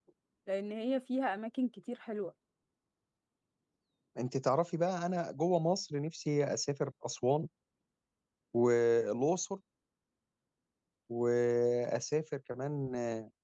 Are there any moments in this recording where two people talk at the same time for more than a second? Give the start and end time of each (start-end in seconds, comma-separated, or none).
none